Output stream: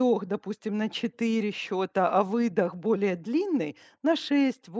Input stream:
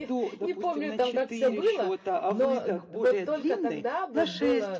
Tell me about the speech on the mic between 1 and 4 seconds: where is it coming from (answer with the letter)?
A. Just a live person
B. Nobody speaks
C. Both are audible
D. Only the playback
C